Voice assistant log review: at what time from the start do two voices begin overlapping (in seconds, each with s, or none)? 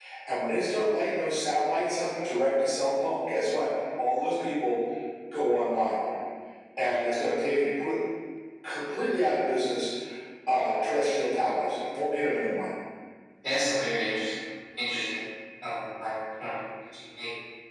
none